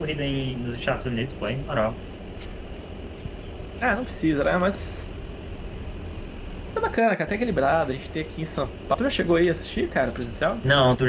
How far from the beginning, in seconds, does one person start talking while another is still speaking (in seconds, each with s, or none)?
none